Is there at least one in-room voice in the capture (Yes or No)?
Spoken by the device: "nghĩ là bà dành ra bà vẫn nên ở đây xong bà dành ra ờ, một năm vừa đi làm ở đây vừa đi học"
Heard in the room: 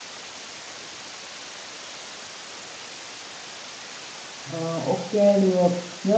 Yes